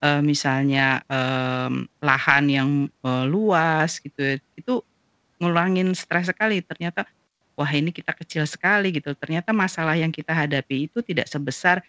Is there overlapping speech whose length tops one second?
No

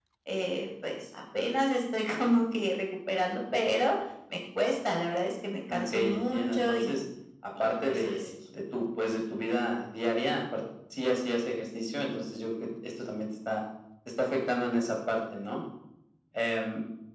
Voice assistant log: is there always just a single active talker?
No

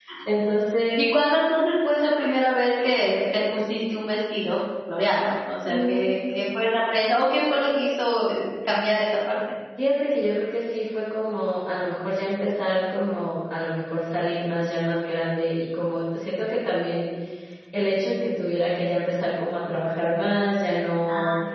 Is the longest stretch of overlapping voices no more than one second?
Yes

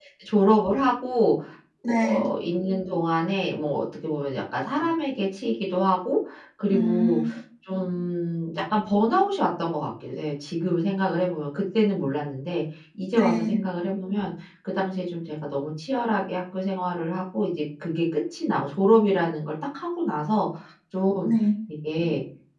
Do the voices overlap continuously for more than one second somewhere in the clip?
No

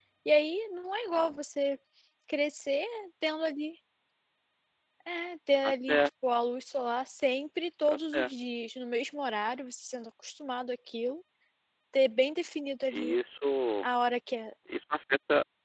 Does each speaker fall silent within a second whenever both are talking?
Yes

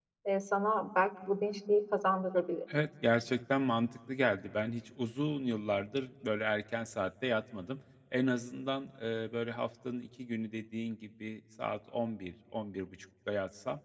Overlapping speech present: No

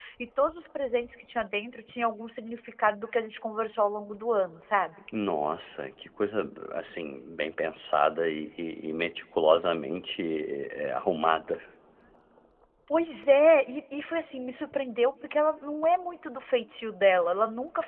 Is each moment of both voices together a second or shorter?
Yes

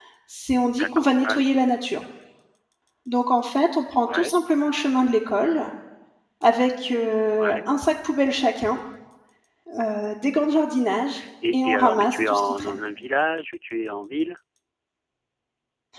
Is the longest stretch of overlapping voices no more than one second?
No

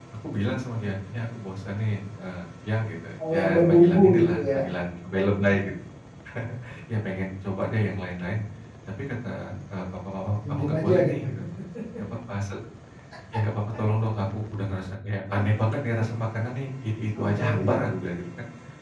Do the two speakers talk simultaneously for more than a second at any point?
Yes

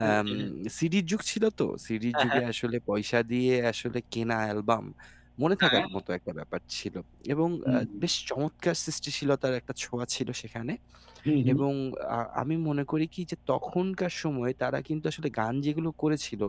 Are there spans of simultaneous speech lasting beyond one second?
No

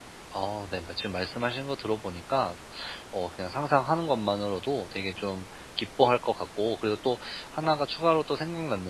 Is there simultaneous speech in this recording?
No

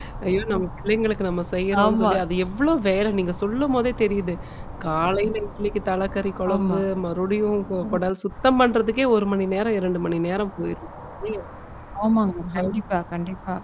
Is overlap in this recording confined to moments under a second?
Yes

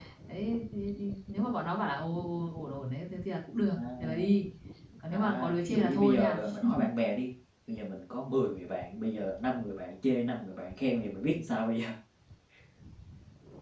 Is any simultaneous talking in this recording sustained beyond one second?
Yes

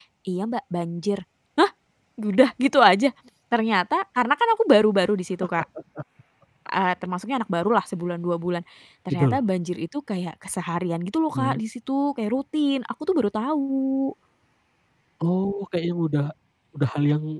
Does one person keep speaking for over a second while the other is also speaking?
No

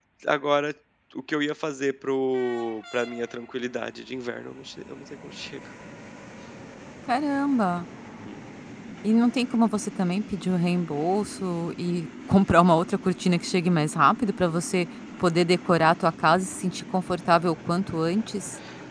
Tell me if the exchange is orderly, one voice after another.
Yes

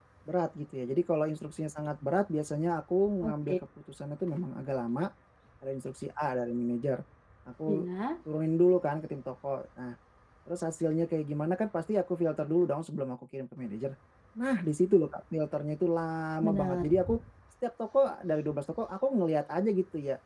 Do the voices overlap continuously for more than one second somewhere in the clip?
No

